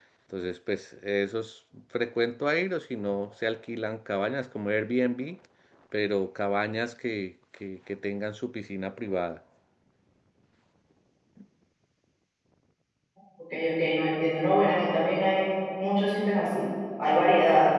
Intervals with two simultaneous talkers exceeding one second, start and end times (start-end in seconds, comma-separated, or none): none